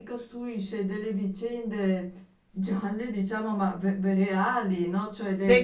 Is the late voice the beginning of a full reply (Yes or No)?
Yes